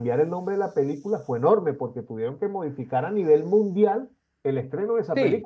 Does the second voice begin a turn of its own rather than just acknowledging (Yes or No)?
Yes